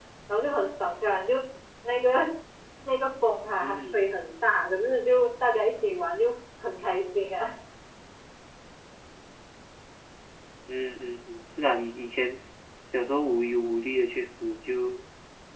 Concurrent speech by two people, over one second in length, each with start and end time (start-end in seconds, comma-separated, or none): none